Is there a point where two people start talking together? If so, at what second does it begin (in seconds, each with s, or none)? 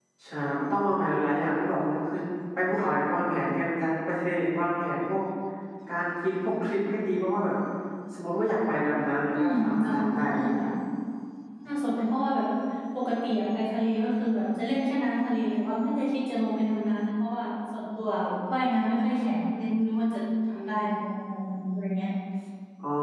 9.3 s